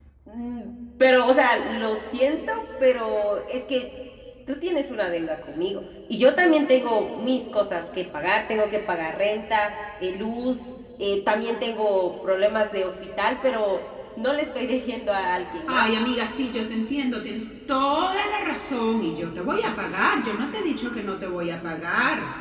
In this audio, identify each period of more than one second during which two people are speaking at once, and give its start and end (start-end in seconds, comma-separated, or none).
none